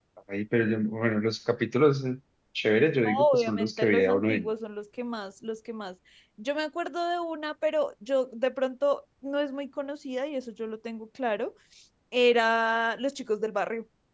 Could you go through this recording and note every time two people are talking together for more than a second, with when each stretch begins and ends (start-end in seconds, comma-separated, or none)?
3.0-4.5